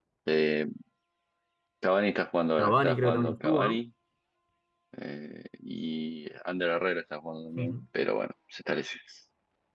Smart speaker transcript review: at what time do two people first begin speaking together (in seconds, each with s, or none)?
2.6 s